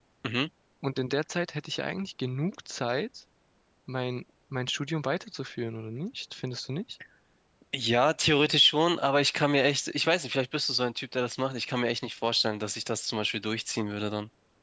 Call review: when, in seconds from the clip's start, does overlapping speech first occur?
none

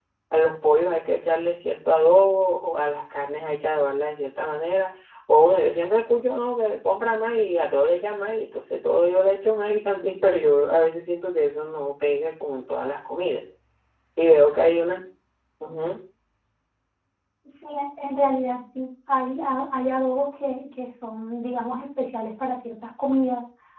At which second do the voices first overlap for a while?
none

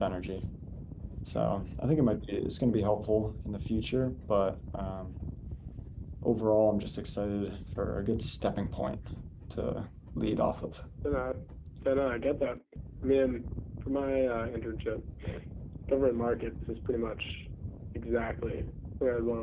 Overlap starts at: none

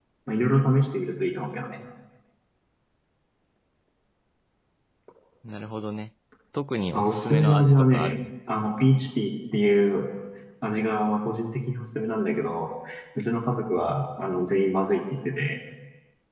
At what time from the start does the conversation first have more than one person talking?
7 s

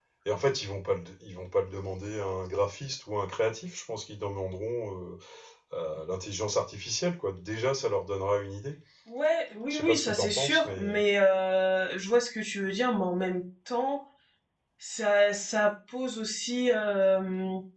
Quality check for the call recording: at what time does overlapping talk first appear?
10 s

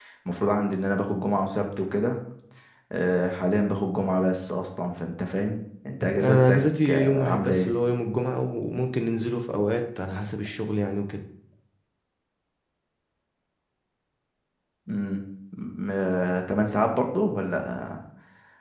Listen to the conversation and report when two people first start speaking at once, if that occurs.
6 s

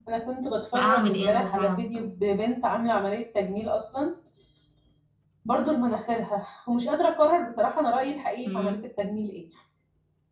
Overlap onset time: 1 s

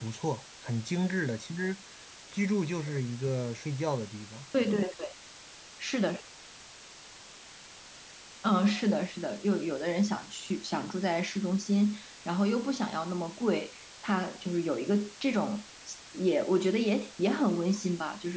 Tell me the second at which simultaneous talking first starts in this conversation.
none

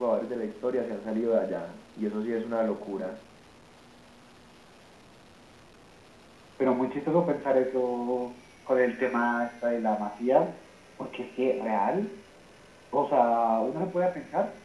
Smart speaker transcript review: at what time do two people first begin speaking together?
none

